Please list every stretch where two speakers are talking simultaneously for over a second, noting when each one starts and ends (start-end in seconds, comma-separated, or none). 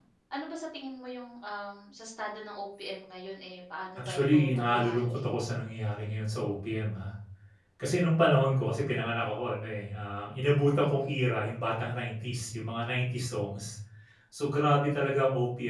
4.0-5.3